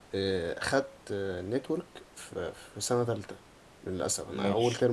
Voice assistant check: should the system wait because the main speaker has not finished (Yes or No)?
Yes